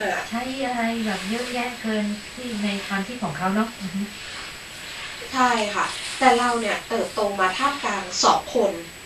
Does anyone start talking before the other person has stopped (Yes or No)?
No